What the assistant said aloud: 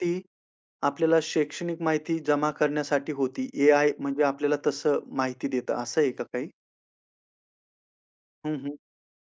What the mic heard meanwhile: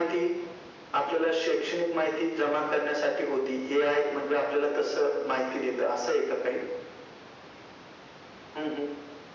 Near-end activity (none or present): none